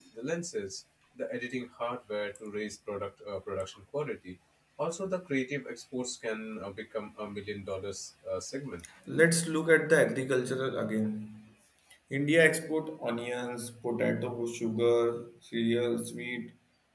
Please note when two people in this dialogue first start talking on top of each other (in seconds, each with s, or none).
none